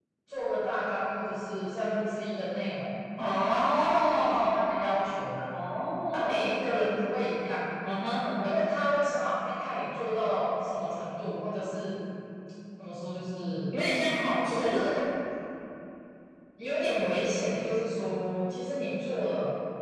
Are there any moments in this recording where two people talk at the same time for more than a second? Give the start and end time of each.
3.5-4.8

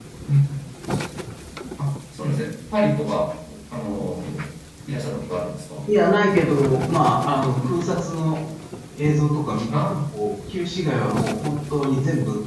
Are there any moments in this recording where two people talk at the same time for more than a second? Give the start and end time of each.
none

